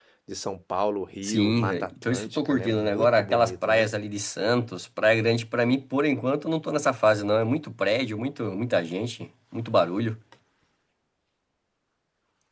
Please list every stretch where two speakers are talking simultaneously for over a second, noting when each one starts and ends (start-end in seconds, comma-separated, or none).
1.2-3.9